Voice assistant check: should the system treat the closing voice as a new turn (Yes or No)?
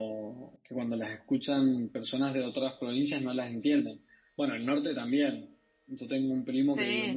No